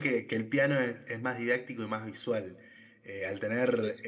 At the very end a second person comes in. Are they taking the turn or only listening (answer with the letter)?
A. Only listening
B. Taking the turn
A